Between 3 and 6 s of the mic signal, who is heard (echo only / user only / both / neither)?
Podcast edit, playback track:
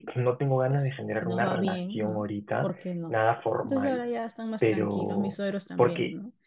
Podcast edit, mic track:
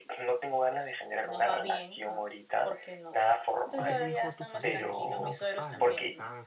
both